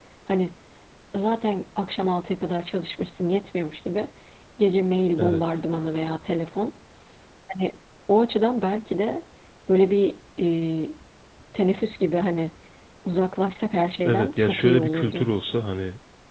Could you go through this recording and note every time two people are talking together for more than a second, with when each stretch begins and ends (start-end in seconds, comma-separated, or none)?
14.1-15.3